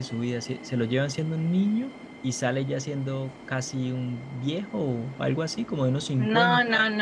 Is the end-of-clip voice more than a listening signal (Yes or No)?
Yes